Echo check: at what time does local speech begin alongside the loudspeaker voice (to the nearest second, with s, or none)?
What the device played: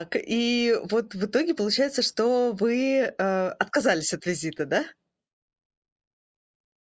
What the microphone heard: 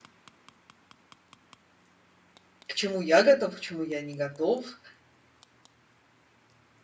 3 s